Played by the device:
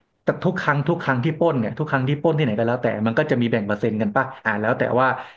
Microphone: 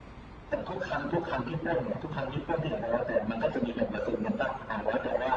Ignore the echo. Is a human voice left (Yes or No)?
No